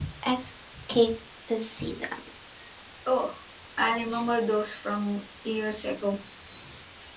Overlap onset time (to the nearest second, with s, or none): none